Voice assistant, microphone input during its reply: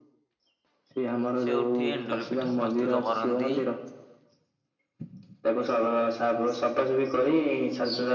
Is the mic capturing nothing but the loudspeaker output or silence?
No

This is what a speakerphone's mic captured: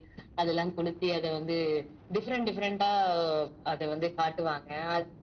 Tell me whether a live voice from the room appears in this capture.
No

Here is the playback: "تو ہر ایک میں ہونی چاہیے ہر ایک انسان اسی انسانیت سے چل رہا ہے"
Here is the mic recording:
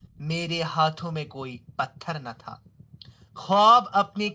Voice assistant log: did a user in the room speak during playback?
Yes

